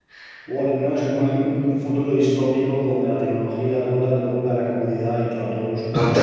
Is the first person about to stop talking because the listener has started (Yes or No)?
Yes